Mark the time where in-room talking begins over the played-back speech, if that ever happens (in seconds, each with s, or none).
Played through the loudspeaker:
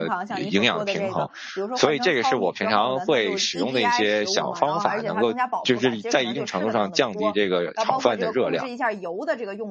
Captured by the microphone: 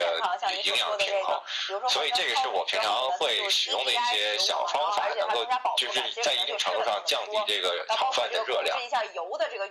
none